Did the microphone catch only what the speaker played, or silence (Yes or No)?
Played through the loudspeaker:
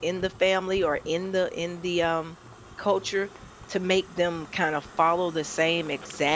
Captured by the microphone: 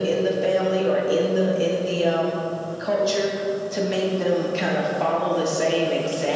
Yes